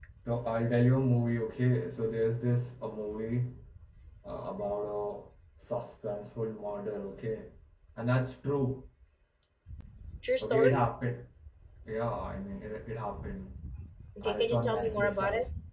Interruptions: present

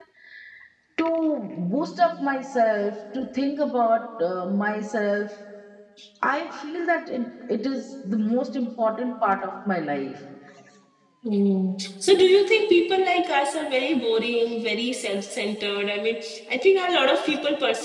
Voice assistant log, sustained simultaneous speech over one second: none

